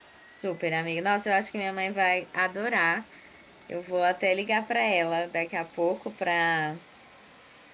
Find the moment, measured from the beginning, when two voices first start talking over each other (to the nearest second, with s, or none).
none